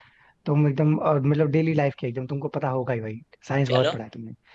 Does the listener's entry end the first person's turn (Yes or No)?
No